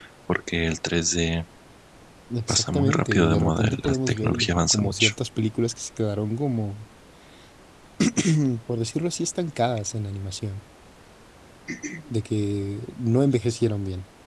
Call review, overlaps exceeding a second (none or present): present